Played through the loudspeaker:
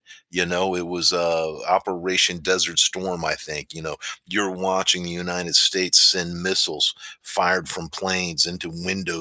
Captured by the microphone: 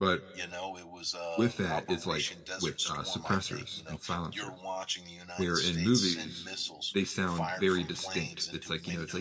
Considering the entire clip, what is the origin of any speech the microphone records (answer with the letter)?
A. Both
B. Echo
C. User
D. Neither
A